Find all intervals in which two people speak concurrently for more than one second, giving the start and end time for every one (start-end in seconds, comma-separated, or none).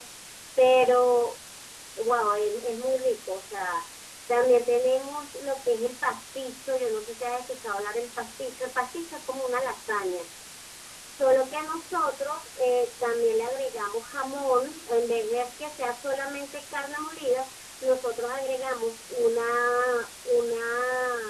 none